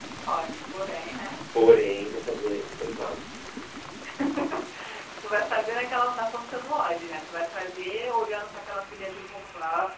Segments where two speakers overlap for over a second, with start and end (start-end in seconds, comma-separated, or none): none